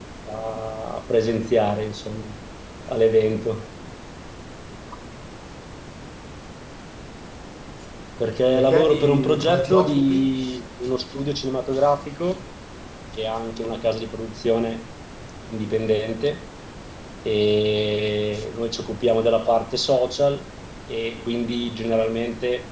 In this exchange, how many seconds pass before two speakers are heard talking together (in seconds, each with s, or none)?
8.5 s